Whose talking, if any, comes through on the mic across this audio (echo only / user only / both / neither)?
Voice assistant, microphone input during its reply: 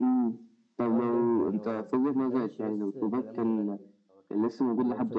both